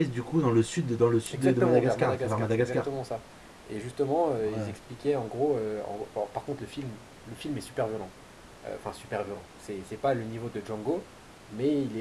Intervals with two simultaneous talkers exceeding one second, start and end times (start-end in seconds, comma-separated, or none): 1.3-2.9